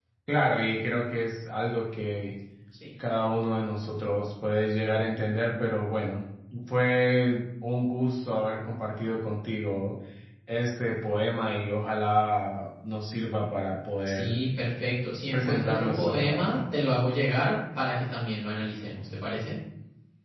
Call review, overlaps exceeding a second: present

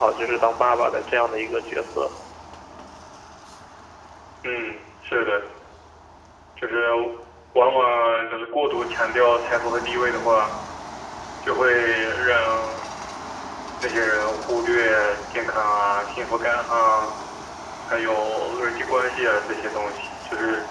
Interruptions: none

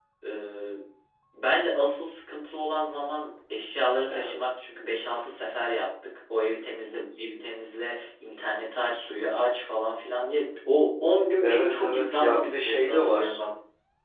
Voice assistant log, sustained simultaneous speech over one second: present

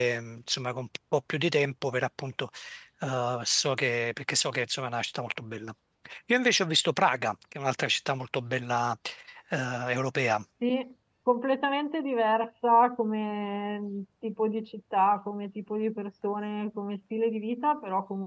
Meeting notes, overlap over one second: none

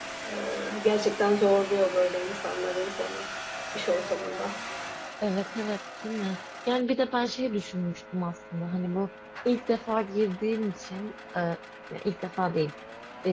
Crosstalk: none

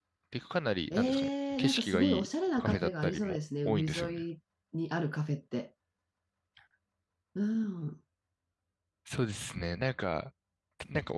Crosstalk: present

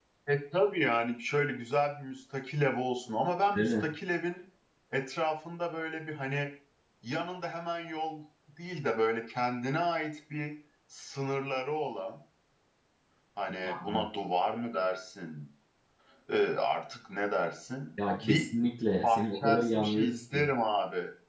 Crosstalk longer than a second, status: present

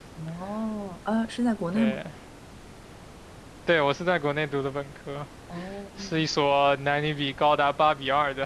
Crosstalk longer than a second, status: none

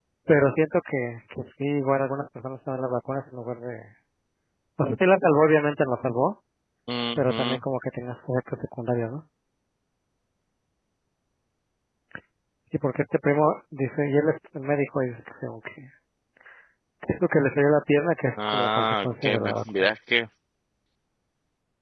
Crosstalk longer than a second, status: present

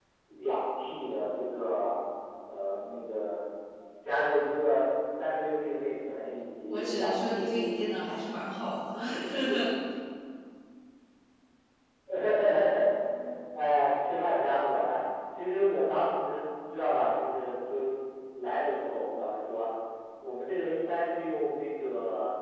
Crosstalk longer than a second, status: present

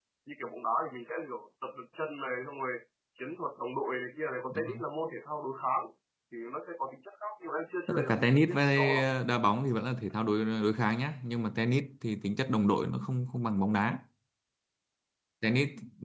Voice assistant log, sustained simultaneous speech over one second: present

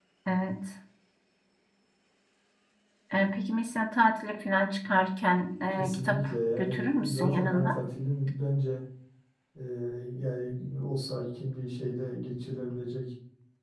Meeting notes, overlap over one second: present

